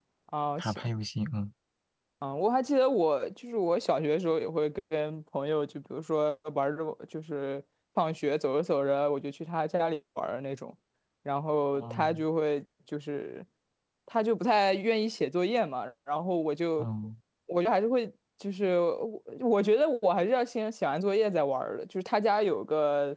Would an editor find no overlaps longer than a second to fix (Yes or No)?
Yes